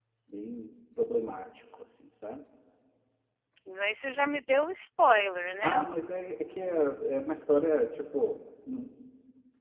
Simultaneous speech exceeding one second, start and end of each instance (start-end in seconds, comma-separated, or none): none